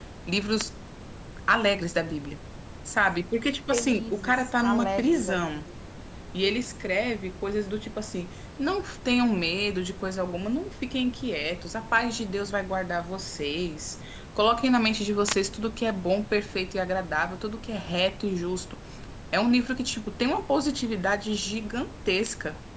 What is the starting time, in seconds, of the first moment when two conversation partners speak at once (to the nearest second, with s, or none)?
4 s